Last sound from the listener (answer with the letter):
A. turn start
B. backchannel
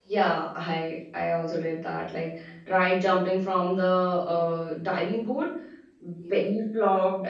B